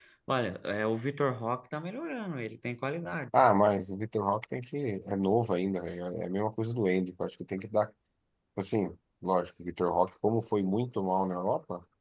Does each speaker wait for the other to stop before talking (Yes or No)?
Yes